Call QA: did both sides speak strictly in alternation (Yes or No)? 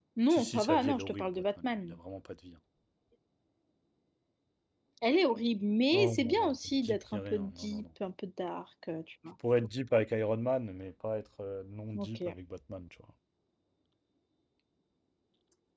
No